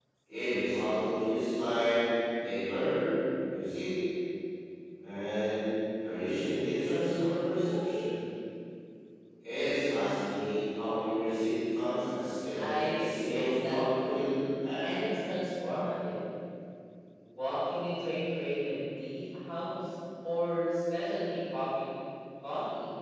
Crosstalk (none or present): present